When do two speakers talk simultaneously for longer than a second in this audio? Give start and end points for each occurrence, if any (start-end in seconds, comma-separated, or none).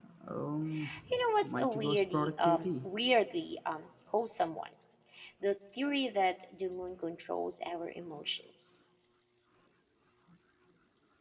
1.4-2.9